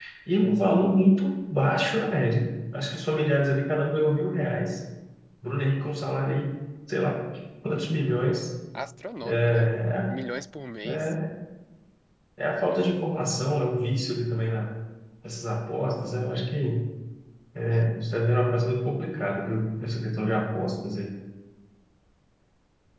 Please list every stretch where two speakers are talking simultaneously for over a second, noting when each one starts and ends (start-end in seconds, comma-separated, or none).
none